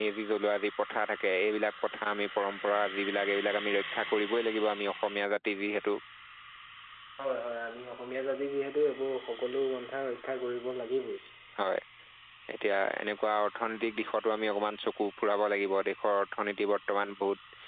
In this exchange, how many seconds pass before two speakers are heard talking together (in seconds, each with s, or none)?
none